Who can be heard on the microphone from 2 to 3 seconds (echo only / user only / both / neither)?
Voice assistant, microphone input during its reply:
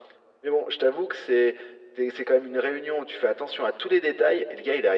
echo only